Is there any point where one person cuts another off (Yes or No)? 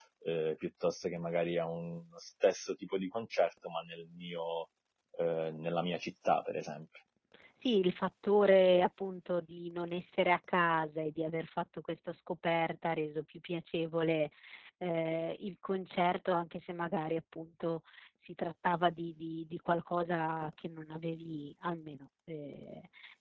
No